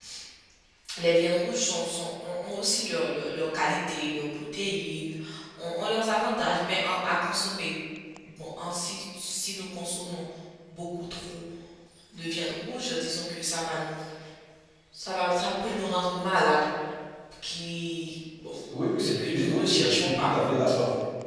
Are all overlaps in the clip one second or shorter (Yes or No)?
No